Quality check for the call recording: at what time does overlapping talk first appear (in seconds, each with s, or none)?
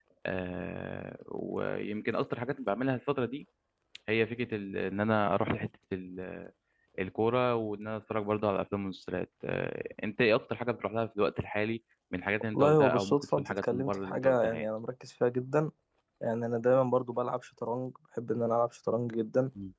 12.5 s